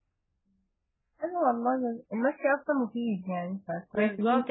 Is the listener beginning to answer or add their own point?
Yes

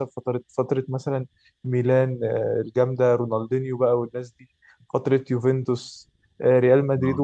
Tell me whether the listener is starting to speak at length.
No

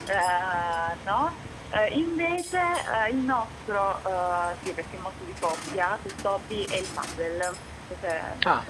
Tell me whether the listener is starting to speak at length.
Yes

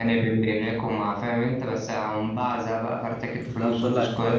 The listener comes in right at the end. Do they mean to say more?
Yes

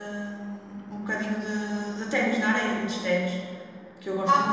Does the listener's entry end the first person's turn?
Yes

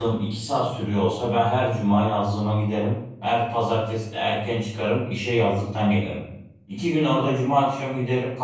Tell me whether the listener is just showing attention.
Yes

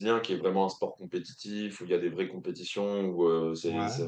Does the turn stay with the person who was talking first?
Yes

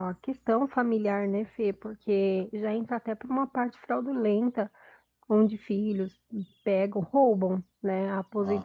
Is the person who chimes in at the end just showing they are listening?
Yes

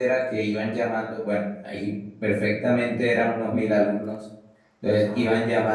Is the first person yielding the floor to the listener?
No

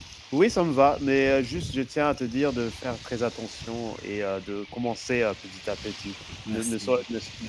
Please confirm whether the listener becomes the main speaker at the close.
No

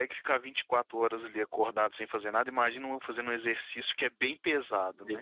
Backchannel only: Yes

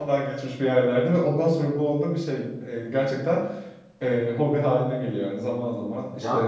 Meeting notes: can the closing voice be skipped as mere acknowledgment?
No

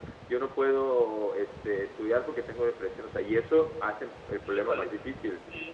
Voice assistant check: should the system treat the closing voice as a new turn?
Yes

